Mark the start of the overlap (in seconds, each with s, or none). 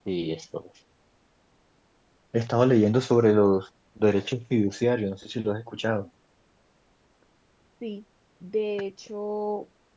none